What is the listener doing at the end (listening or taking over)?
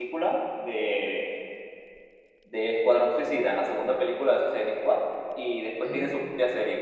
listening